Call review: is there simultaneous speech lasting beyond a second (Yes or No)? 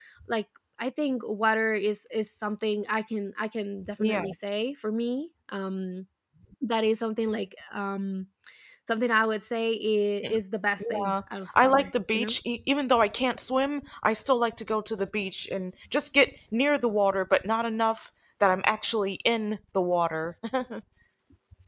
Yes